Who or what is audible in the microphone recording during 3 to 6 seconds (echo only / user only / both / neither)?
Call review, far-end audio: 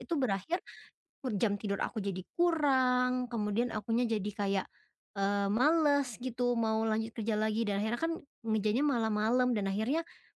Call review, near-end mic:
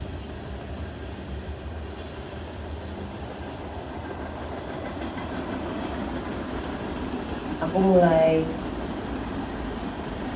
neither